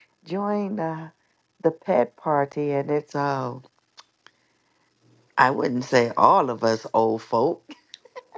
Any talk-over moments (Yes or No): No